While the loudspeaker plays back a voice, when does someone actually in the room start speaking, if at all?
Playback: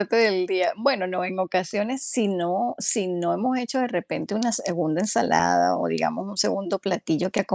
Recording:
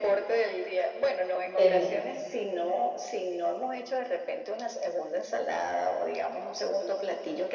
1.5 s

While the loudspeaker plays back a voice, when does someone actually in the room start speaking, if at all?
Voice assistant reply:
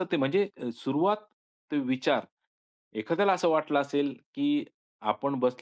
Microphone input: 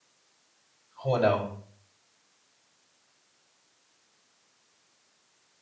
1.0 s

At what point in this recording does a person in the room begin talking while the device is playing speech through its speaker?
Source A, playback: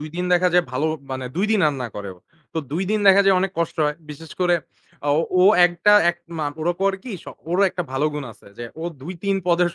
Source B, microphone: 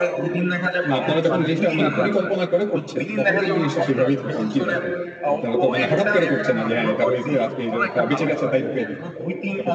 0.9 s

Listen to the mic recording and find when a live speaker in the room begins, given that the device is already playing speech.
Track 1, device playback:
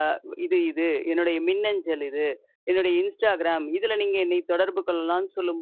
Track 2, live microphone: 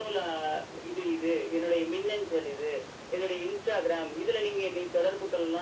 none

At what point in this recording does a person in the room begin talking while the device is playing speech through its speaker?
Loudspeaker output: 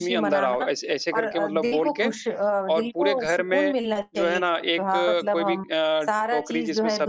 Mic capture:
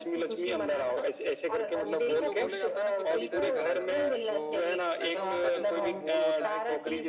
1.8 s

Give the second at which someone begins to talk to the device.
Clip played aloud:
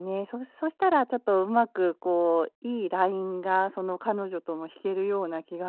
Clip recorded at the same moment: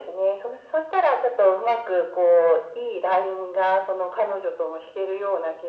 none

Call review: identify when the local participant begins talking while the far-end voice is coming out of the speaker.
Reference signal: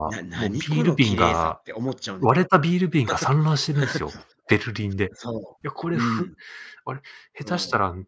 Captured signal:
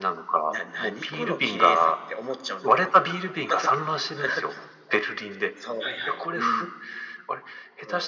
5.8 s

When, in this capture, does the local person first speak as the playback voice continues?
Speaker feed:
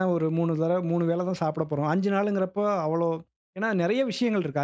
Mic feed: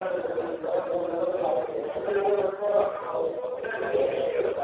none

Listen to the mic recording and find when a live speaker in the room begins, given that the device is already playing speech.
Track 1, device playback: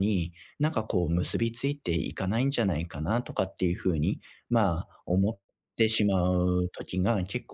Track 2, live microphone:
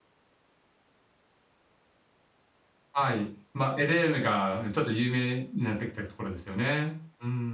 2.9 s

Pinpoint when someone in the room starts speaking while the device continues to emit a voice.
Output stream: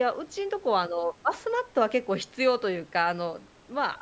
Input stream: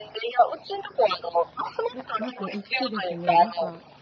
1.9 s

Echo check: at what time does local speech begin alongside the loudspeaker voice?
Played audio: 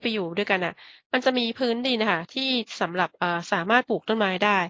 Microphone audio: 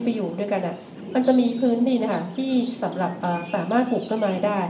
none

